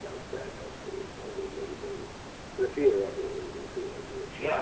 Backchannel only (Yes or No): No